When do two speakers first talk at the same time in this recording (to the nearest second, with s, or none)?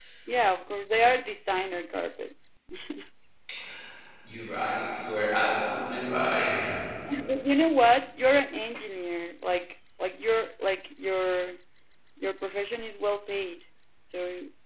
none